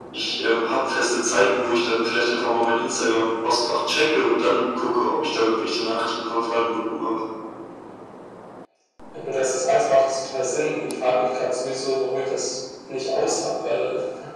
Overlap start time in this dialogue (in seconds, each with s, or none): none